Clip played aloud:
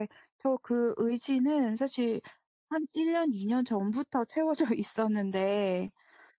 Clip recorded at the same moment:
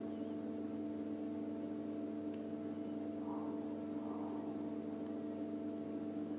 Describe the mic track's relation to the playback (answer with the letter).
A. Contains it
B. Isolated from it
B